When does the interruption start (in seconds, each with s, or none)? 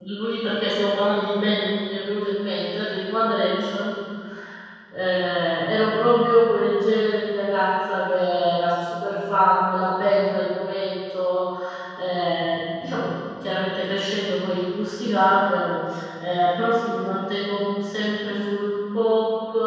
none